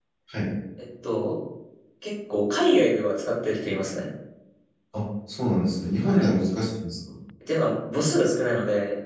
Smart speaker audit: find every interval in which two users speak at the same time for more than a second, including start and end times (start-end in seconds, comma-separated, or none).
none